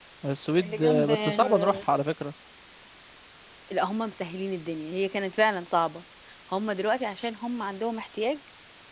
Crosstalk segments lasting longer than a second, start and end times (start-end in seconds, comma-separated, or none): 0.6-1.9